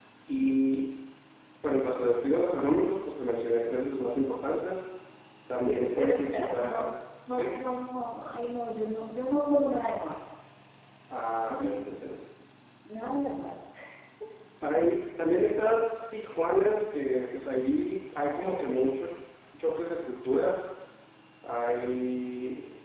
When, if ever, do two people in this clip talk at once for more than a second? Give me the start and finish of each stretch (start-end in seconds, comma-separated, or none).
5.7-6.9